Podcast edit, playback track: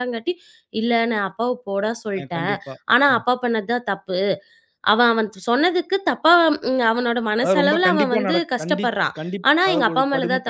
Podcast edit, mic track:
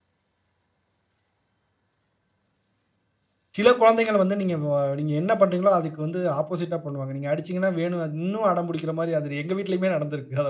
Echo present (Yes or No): No